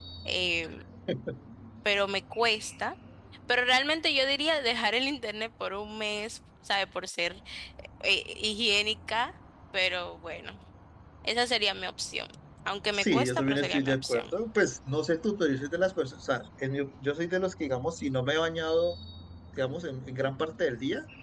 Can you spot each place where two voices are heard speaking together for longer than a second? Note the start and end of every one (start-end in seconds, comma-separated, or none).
12.9-14.3